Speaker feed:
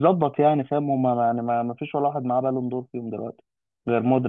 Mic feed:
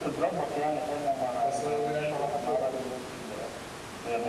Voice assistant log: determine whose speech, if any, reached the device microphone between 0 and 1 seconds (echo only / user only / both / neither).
echo only